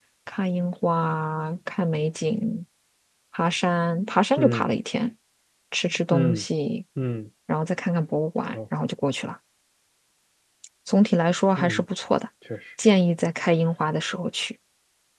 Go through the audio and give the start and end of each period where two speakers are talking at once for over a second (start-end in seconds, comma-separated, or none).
none